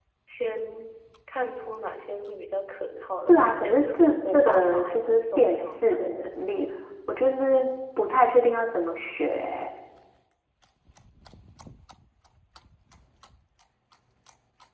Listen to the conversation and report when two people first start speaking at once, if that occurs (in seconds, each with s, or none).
3.3 s